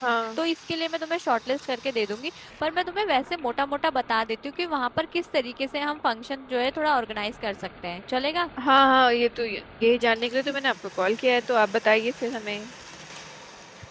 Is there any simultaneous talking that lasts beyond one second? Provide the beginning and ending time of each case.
none

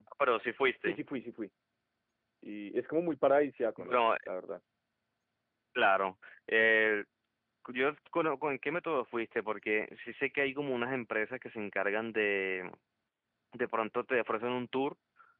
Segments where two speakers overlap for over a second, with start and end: none

